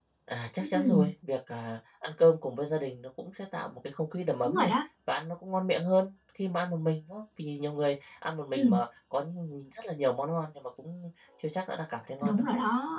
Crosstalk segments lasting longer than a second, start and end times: none

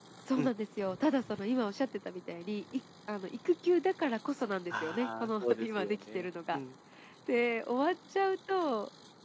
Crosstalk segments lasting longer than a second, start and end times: 4.7-6.6

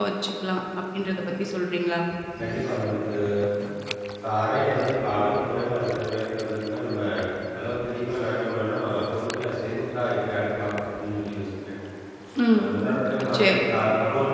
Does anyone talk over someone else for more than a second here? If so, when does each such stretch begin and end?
none

